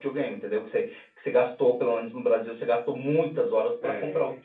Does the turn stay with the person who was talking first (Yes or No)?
Yes